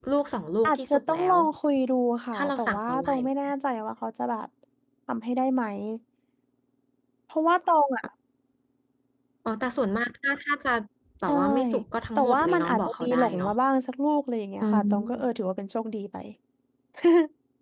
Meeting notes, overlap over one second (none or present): present